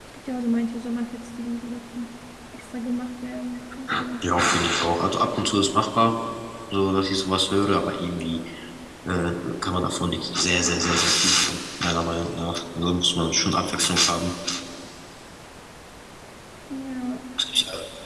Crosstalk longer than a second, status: none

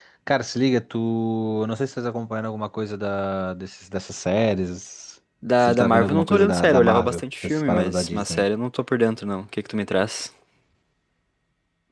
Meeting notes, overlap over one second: present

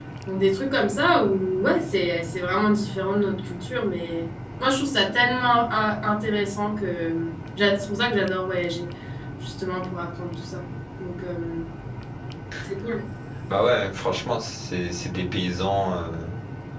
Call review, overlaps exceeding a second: none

